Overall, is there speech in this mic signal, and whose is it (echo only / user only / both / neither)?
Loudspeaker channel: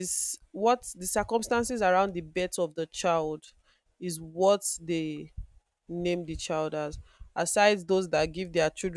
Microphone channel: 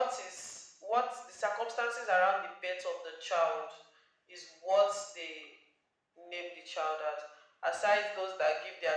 echo only